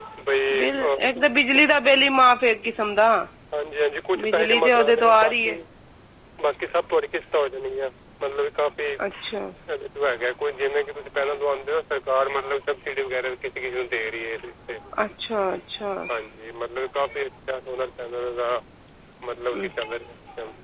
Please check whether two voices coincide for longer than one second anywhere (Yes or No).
Yes